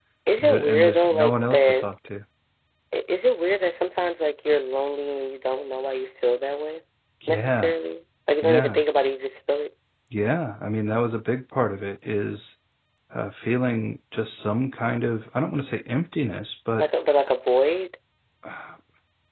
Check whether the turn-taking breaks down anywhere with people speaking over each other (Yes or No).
Yes